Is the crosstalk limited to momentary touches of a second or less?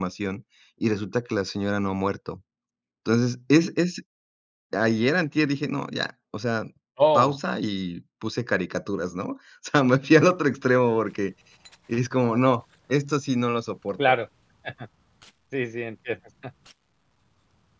Yes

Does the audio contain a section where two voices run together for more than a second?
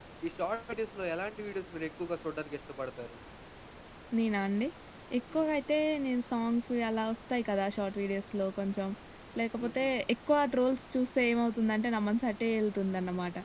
No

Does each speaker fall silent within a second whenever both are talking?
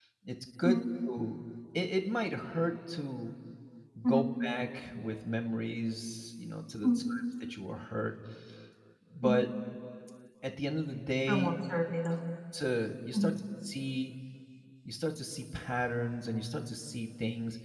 Yes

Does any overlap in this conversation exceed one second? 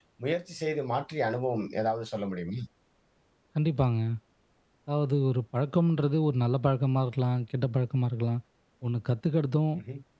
No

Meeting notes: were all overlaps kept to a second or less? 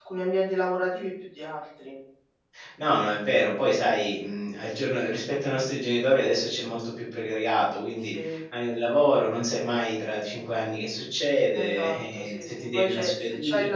No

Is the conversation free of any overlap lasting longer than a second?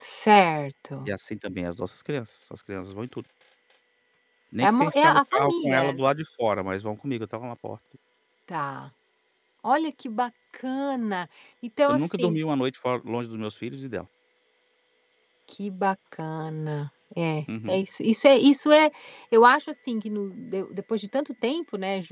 No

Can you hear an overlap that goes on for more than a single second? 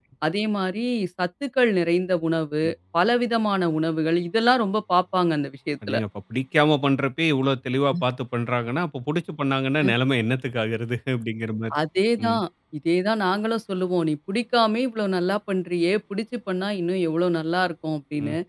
No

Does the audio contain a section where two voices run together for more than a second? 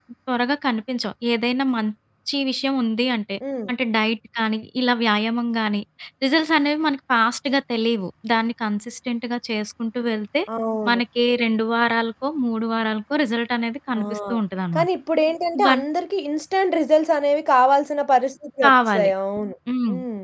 No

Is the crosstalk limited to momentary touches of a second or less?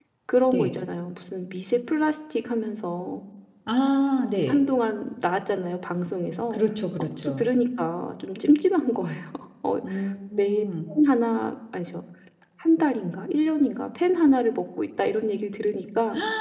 Yes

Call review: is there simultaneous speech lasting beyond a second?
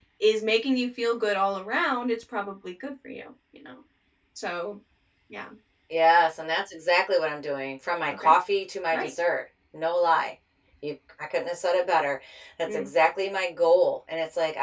No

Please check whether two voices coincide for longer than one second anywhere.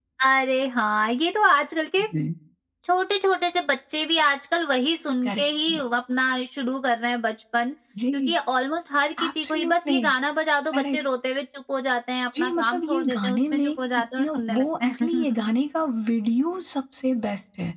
Yes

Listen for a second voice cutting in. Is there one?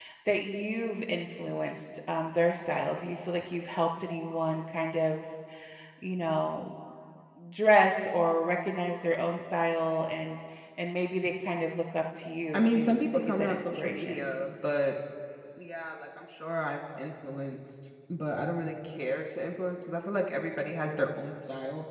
Yes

